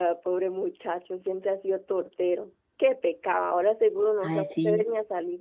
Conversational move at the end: listening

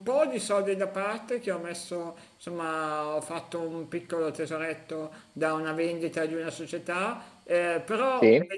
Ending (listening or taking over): listening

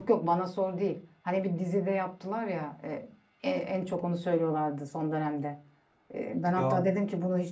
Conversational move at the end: listening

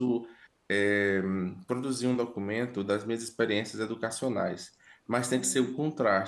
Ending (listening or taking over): listening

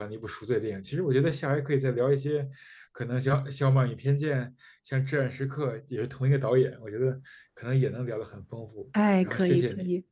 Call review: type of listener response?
taking over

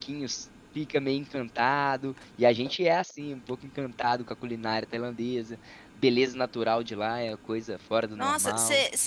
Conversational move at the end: taking over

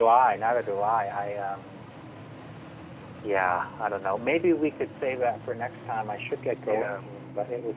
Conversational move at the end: listening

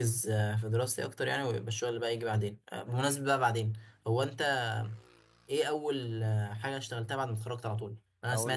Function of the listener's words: listening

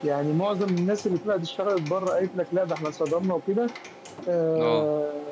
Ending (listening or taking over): listening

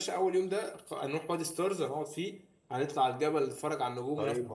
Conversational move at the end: taking over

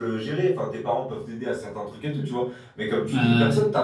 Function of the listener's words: listening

